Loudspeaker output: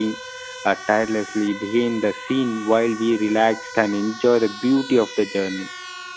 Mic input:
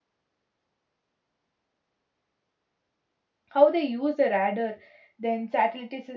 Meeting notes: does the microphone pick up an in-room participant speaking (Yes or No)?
Yes